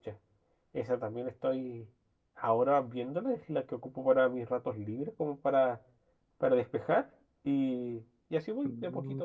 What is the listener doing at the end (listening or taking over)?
taking over